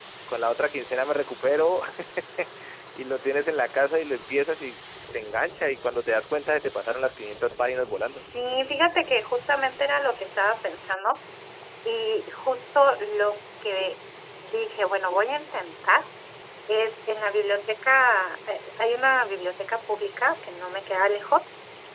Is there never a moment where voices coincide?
Yes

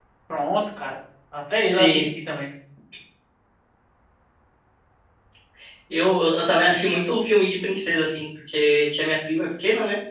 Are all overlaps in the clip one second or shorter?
Yes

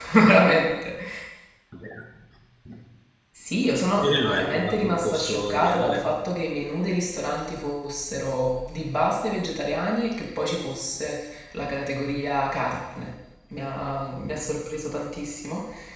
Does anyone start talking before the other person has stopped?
Yes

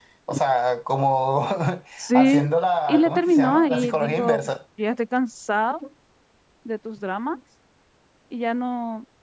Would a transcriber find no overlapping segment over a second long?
No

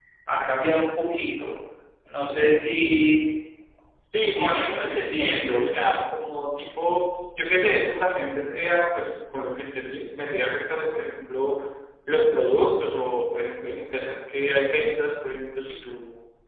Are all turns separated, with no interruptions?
No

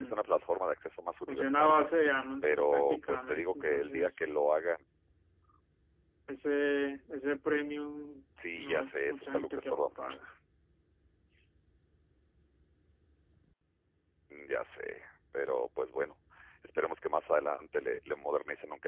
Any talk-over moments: Yes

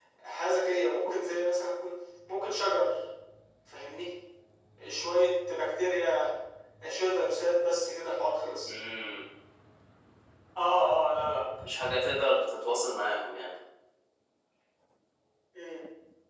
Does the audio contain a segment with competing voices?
No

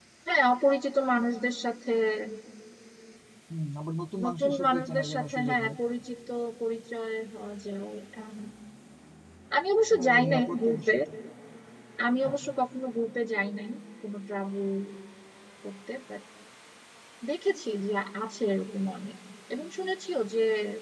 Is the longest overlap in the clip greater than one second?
Yes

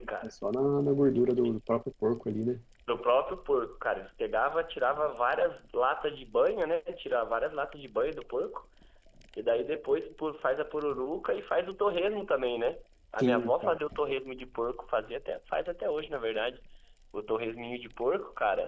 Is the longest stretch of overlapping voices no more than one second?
Yes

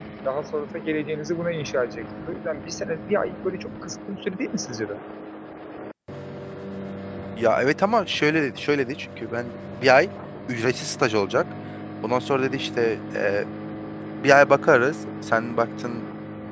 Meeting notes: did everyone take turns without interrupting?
Yes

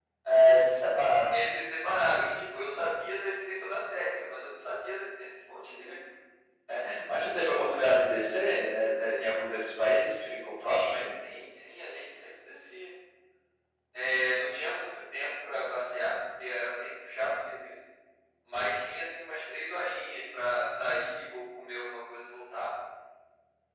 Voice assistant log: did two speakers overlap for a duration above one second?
No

